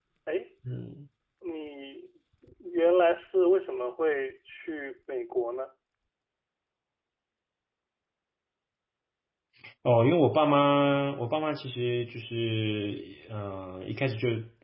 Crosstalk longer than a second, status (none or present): none